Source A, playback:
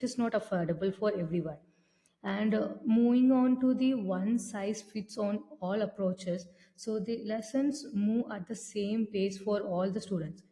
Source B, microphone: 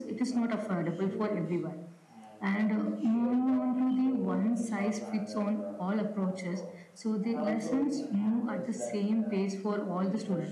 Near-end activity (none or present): present